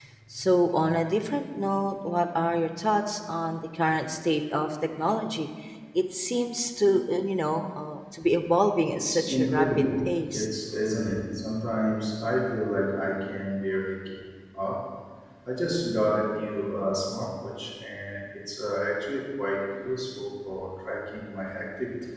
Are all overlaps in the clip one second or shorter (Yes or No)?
No